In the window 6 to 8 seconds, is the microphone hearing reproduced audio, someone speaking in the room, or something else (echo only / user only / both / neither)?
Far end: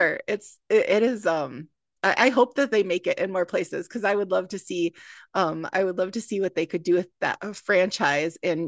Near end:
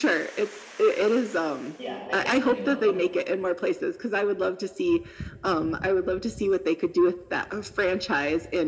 echo only